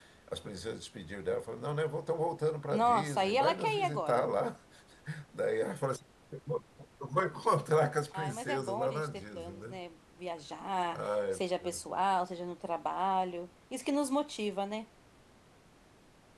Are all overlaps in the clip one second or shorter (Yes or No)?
No